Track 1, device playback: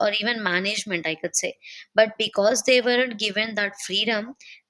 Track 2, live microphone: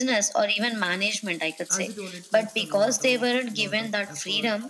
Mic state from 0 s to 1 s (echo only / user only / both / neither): echo only